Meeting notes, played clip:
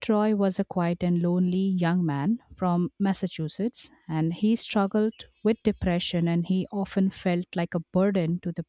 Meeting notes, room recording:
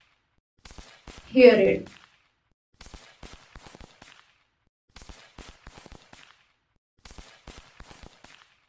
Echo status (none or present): none